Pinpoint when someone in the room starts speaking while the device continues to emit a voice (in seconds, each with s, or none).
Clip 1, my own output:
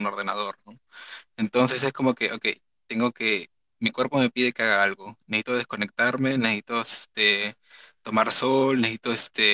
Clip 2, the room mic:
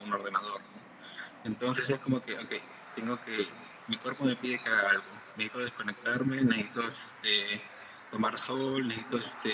none